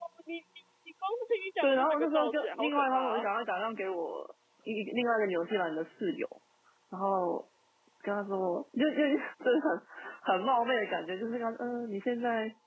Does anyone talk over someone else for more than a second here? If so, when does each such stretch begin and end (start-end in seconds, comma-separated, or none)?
1.6-3.2